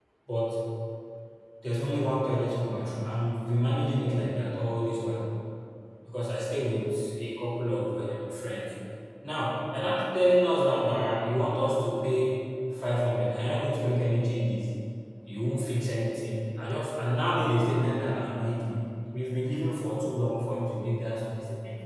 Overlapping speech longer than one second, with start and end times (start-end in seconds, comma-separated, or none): none